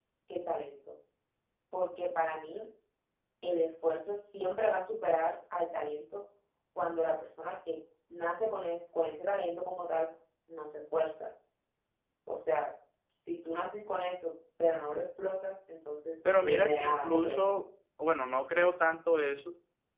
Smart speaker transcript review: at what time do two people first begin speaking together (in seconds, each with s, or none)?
16.2 s